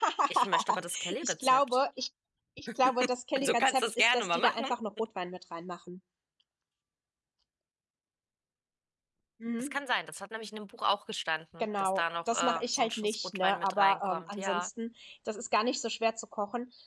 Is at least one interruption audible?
Yes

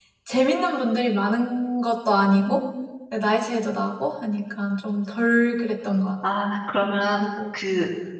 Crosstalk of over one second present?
No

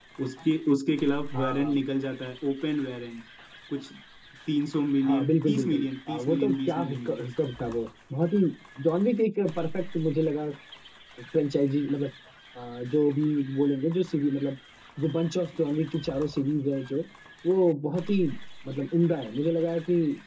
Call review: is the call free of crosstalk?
No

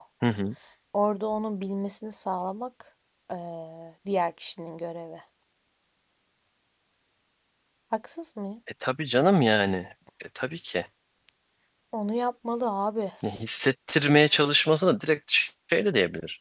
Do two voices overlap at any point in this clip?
No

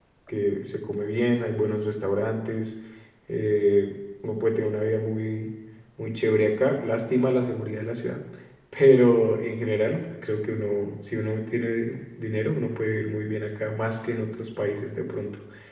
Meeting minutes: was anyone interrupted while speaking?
No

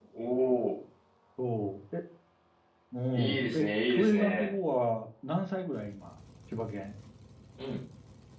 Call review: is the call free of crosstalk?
No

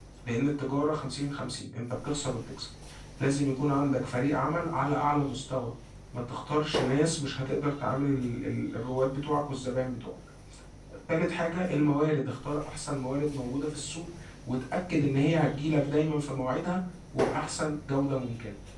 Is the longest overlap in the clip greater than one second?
No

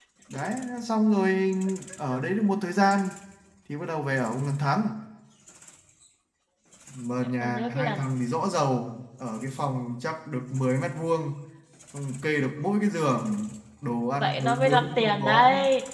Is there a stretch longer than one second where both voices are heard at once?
Yes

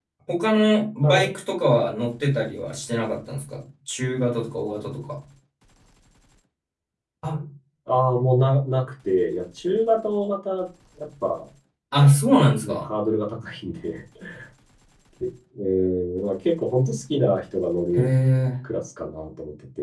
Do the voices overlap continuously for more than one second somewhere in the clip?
No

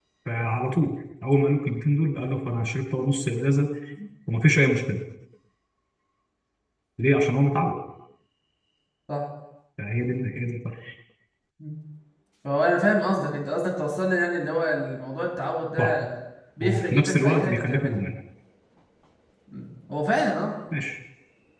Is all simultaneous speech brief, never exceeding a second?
No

